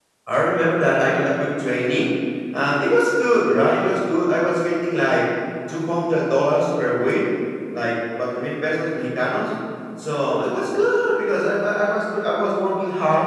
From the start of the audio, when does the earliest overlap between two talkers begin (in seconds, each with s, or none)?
none